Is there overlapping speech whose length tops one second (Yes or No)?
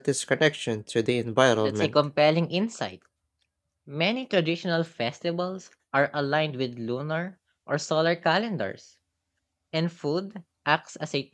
No